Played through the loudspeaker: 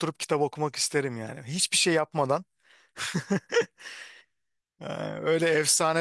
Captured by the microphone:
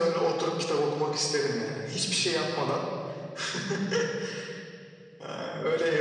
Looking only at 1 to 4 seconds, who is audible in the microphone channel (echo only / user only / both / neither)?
echo only